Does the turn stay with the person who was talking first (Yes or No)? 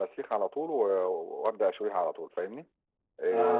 No